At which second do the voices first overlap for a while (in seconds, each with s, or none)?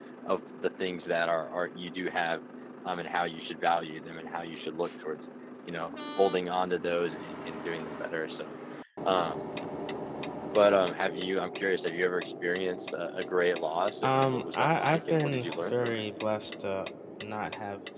14.0 s